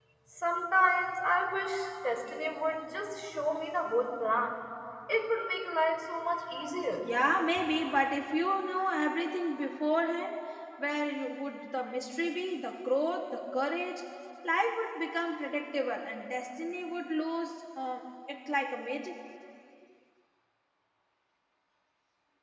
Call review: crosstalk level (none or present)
none